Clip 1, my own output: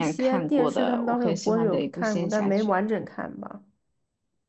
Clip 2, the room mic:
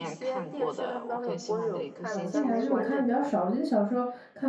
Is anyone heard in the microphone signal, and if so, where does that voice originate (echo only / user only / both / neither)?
both